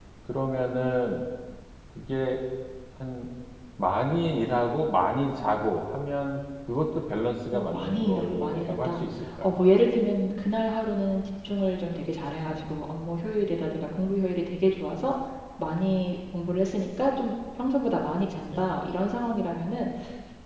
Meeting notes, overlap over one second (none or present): present